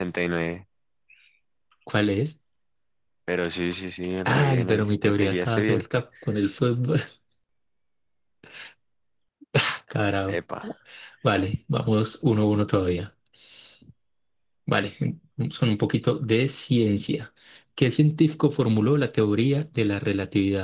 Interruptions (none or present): present